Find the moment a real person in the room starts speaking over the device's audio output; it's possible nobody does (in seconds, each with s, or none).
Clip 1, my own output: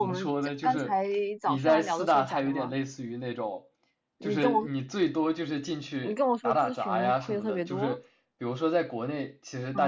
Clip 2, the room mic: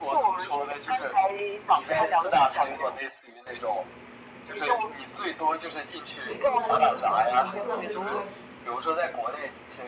6.1 s